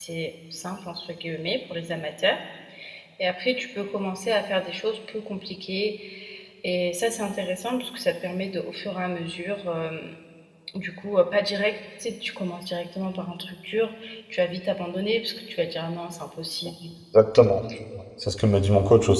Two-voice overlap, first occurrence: none

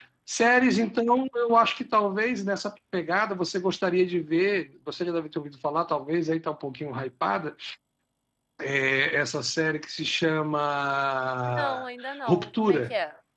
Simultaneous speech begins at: 11.5 s

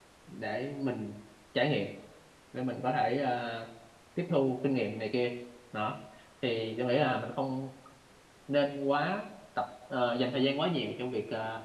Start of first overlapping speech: none

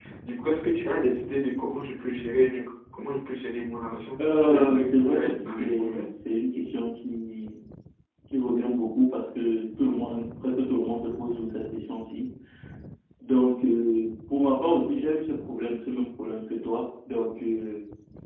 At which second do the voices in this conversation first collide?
4.2 s

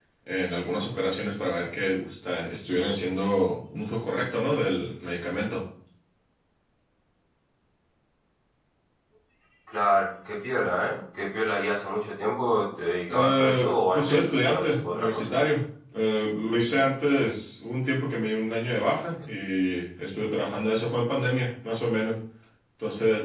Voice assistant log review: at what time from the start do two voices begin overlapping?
13.1 s

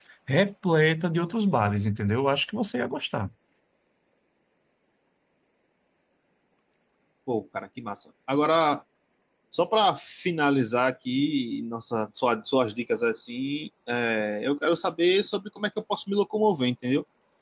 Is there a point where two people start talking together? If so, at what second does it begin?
none

